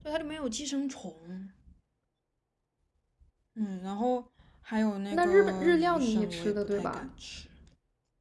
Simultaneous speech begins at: 5.1 s

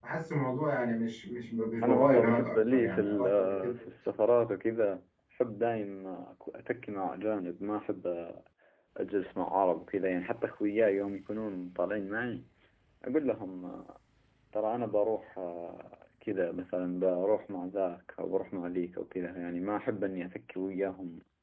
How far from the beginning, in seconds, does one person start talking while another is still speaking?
1.8 s

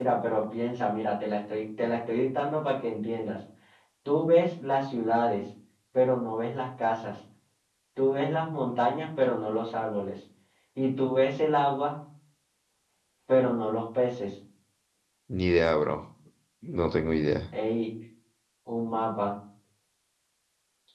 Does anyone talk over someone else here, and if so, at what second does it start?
none

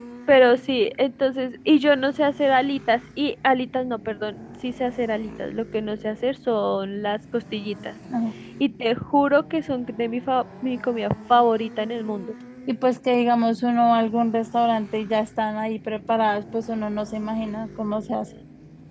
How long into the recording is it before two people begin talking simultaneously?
none

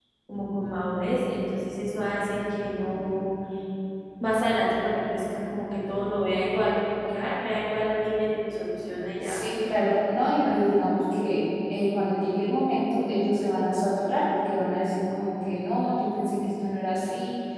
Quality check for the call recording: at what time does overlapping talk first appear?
9.2 s

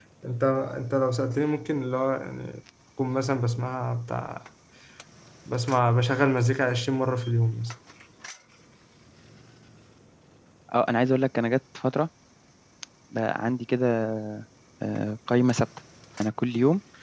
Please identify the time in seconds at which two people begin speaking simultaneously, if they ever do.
none

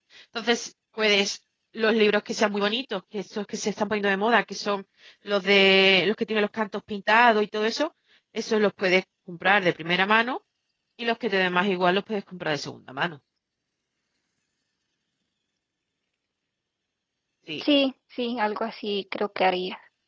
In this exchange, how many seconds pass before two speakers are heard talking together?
none

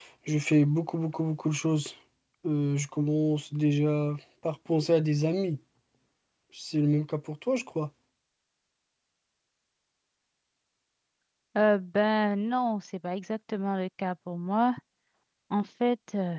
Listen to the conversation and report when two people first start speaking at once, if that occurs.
none

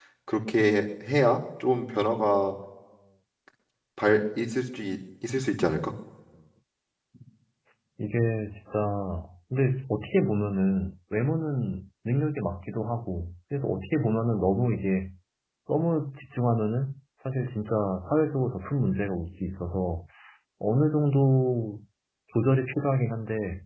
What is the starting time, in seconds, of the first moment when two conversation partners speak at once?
none

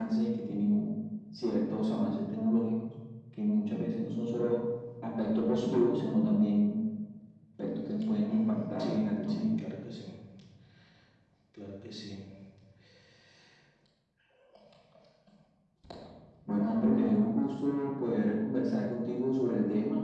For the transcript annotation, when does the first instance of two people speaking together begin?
8.3 s

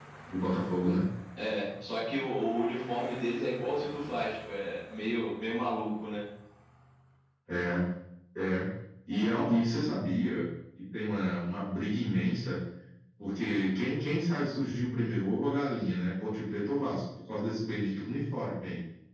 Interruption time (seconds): none

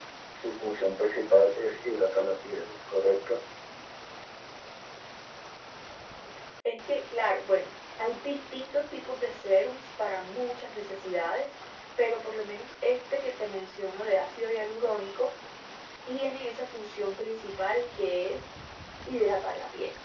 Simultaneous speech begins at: none

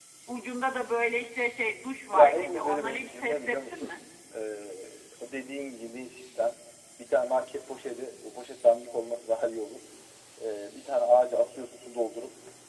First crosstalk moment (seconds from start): 2.1 s

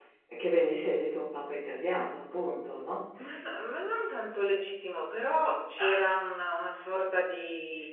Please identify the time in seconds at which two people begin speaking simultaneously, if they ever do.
none

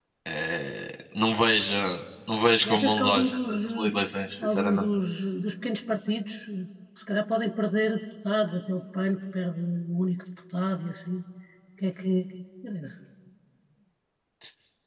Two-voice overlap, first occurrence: 2.6 s

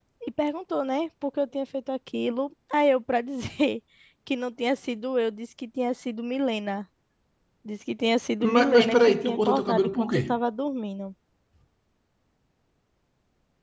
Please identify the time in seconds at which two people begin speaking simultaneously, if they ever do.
8.5 s

